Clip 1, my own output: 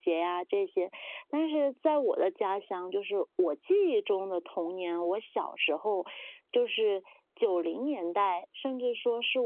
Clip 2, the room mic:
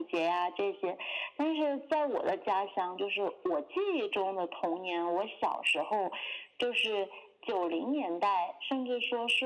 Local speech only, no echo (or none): none